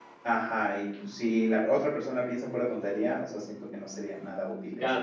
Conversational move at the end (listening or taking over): taking over